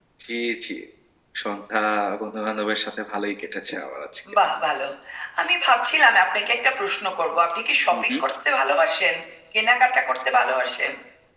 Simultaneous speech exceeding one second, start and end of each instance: none

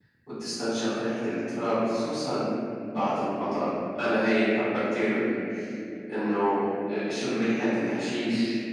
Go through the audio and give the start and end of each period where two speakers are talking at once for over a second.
none

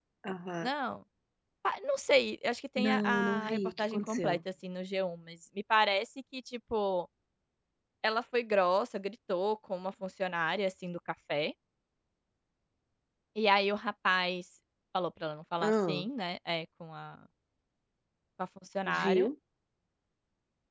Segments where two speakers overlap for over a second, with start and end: 2.8-4.4

